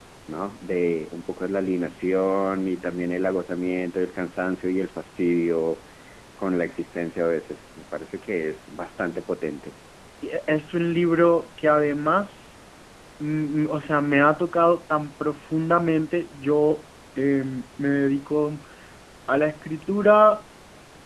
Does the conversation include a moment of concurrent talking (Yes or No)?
No